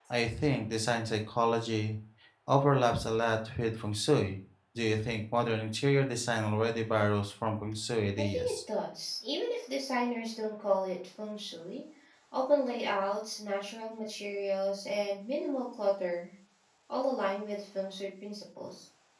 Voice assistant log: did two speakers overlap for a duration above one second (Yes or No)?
No